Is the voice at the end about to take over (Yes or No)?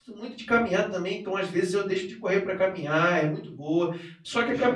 No